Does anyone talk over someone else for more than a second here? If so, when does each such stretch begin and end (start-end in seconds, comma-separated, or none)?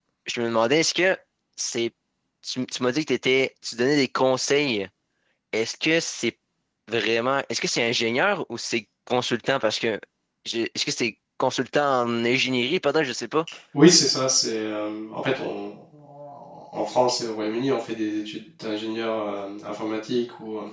none